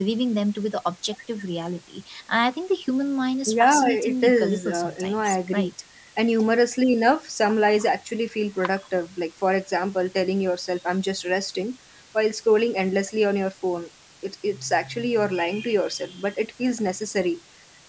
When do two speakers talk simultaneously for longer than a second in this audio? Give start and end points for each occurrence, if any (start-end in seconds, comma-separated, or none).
3.5-5.7